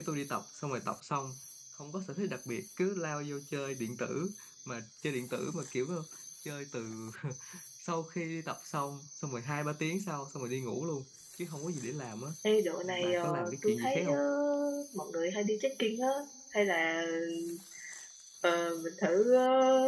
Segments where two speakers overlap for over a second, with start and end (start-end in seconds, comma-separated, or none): 12.8-14.2